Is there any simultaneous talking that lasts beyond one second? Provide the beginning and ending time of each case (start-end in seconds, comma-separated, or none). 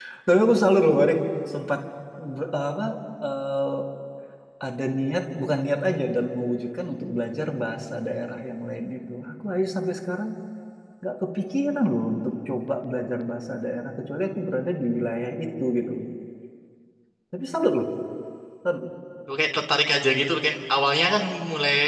none